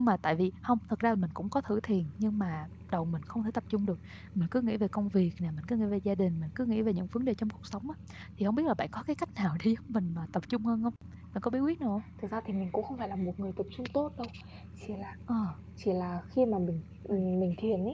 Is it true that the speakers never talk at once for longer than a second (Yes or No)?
Yes